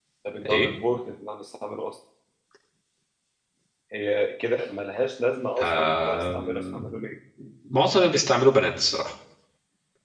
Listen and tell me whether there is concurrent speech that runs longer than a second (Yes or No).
Yes